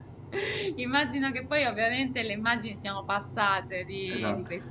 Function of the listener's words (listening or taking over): listening